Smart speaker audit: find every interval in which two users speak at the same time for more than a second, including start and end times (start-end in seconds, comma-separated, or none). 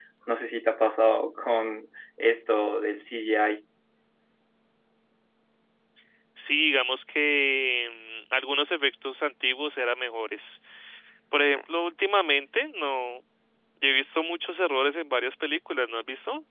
none